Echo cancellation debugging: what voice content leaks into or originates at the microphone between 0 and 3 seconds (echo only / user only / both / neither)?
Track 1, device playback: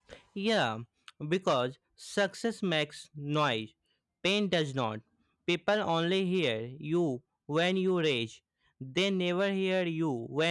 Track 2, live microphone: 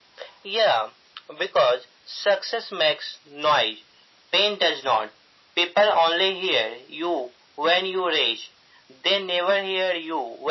echo only